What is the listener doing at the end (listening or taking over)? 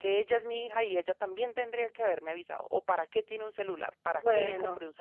taking over